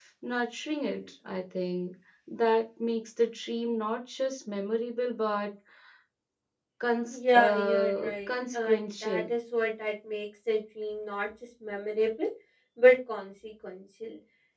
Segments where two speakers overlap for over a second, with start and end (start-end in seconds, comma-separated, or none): 7.1-9.2